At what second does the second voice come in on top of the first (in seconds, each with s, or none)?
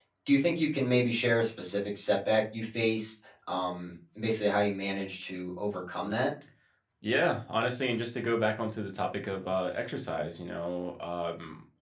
none